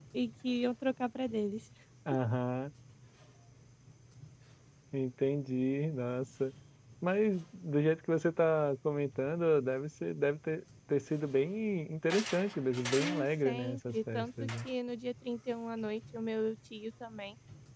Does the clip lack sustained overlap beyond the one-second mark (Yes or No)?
No